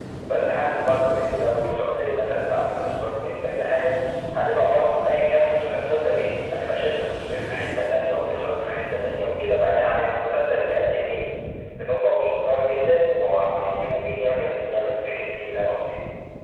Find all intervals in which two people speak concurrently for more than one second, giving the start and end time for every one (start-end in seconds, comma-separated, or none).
none